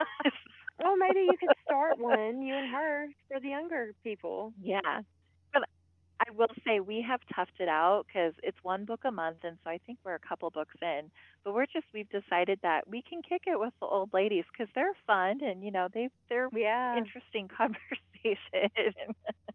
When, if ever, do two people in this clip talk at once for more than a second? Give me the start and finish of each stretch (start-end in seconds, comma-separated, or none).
none